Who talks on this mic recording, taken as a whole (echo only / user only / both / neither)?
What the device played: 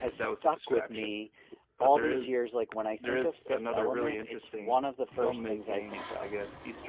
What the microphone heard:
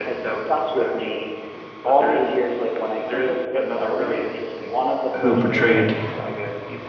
both